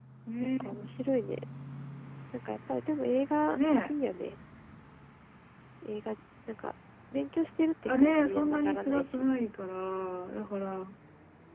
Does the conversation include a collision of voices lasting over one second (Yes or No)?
Yes